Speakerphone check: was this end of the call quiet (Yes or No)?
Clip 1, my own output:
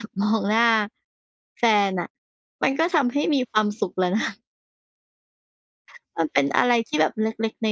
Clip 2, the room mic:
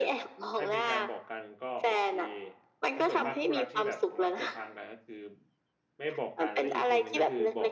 No